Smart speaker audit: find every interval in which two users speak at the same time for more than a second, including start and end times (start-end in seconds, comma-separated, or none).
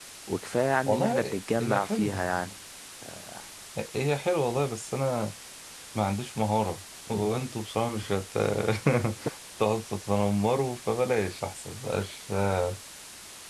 0.9-2.2